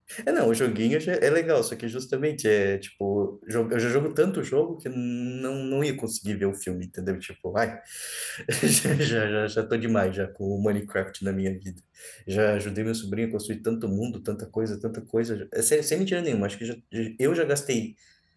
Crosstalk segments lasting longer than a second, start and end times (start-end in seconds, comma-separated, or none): none